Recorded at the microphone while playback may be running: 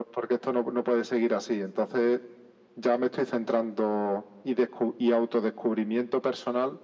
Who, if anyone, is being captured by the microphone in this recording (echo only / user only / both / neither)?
echo only